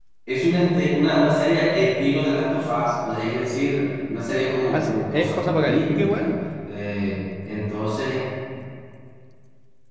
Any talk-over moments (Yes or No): Yes